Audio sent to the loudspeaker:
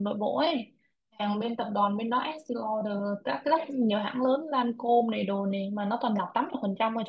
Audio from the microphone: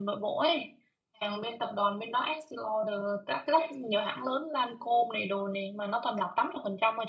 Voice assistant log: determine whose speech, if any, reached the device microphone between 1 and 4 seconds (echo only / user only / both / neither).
echo only